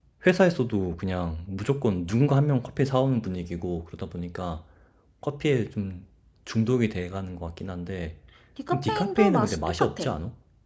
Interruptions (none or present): present